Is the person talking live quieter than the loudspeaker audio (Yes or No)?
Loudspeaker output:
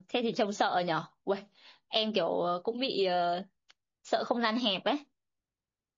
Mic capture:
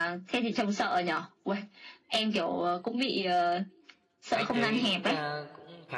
Yes